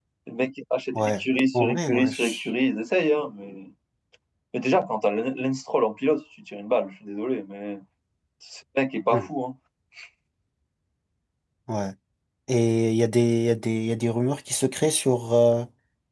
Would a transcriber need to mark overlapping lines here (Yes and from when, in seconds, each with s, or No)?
Yes, from 0.9 s